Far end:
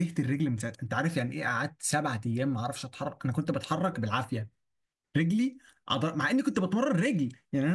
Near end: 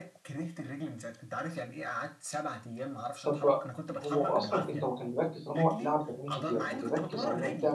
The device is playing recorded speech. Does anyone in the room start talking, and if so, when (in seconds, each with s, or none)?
3.2 s